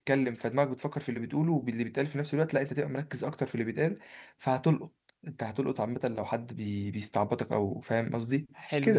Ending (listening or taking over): taking over